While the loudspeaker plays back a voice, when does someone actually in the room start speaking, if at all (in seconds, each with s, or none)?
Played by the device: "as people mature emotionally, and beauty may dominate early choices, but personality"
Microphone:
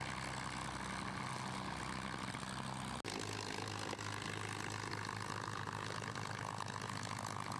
none